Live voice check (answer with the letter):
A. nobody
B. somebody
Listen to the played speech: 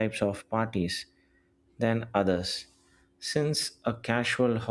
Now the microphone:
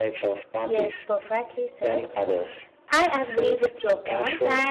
B